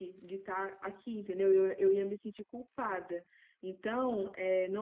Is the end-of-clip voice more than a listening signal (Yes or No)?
No